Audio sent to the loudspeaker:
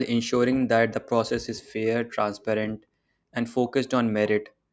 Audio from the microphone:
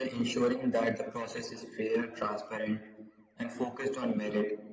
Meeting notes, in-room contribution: none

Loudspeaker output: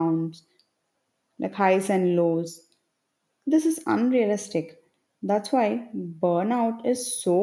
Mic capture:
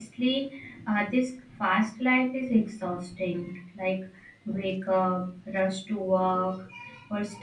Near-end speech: present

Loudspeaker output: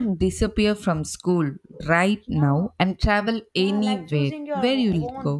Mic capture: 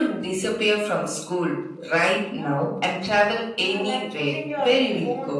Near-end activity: none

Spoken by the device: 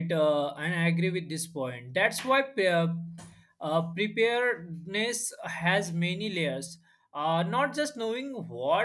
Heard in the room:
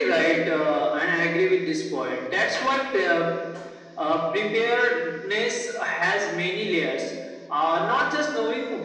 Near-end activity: none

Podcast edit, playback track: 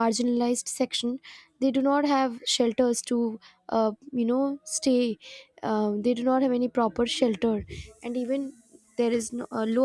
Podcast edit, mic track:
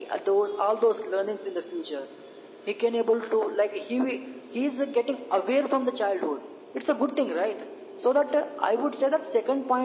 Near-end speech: present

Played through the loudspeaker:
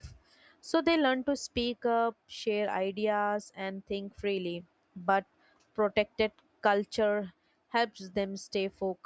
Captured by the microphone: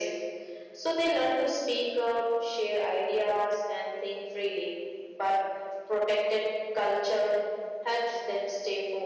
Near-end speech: none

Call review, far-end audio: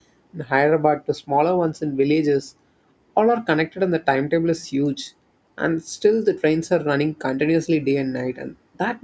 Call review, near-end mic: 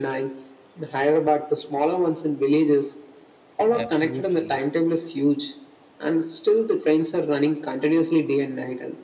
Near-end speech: present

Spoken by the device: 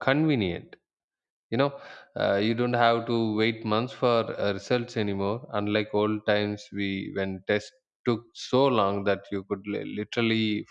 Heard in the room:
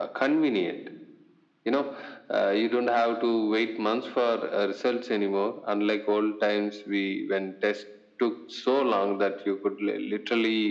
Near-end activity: none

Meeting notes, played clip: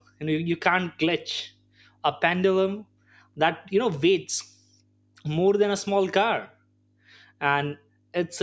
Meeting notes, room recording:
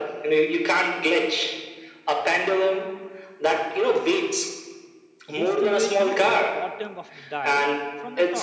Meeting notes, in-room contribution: present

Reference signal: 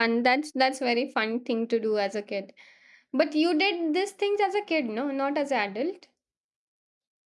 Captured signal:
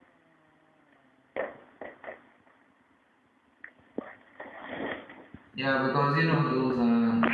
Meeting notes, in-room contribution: present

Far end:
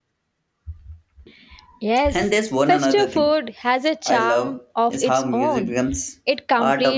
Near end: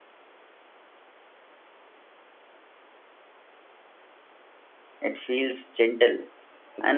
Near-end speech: present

